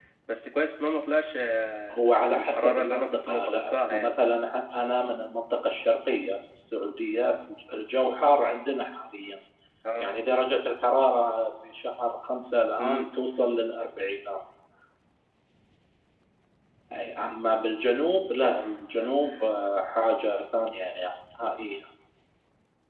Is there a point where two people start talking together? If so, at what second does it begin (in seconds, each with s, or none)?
1.9 s